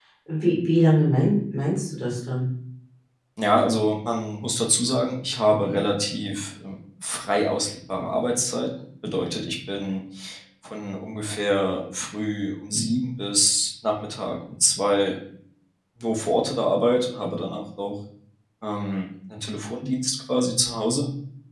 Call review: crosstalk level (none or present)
none